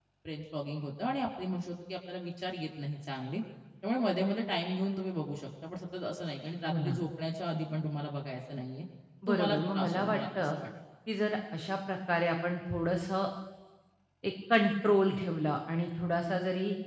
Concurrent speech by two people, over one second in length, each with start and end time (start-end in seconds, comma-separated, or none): 9.3-10.6